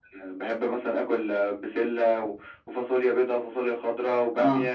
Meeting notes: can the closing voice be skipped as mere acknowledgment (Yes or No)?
Yes